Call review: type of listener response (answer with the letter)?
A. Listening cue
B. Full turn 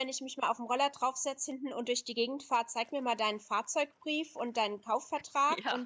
A